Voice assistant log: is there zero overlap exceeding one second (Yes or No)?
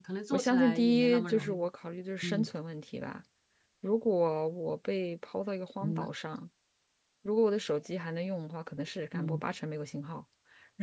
No